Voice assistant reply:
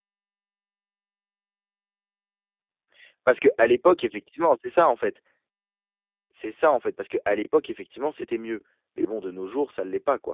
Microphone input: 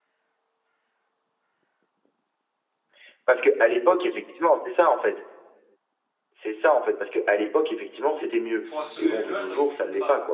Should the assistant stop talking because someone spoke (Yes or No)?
Yes